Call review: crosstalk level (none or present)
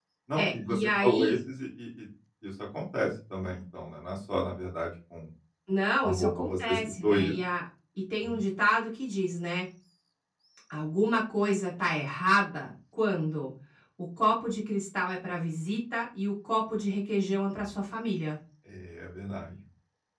present